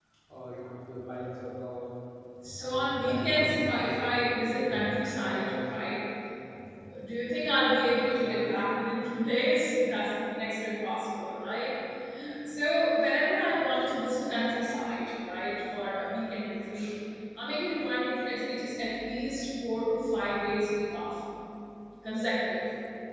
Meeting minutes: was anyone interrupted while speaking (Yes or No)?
Yes